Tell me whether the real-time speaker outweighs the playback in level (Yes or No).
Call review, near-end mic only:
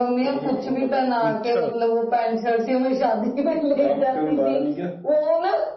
No